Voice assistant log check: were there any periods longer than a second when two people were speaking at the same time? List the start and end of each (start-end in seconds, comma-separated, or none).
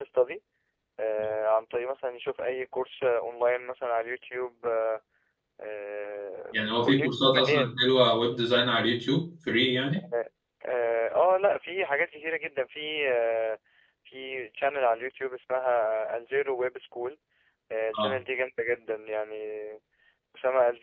6.5-7.8